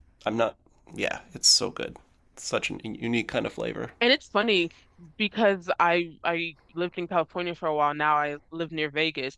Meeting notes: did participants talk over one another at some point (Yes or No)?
No